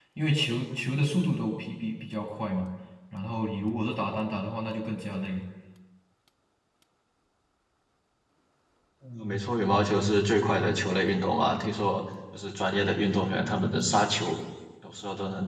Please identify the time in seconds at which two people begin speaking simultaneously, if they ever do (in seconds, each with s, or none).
none